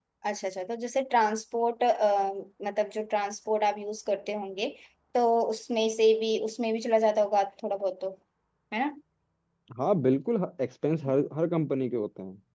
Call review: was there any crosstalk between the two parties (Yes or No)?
No